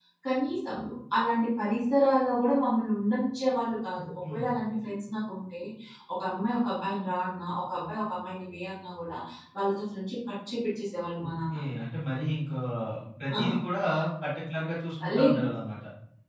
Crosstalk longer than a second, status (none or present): none